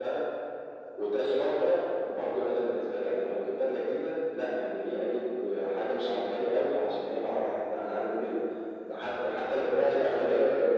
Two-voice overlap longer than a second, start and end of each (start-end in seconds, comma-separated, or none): none